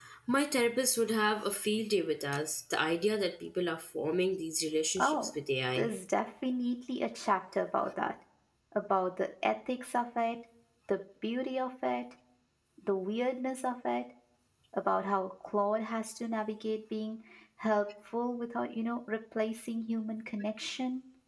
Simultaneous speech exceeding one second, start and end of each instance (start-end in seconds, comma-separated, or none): none